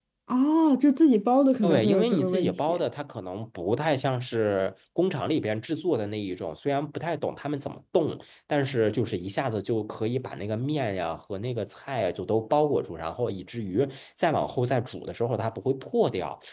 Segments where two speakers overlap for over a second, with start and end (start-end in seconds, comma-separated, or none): 1.6-2.8